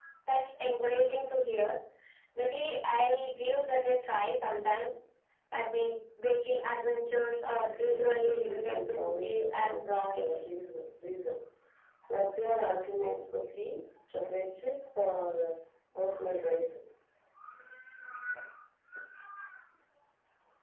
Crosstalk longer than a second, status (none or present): present